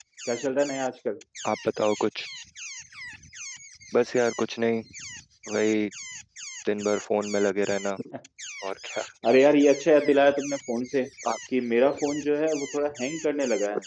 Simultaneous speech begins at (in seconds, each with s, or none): none